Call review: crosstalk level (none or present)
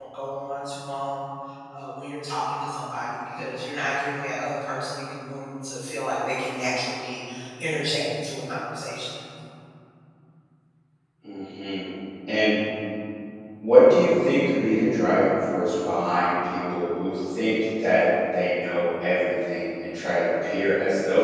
none